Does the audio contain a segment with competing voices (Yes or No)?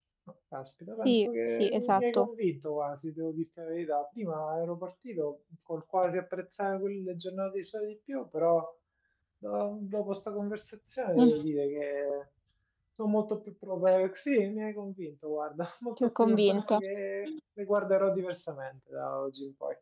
Yes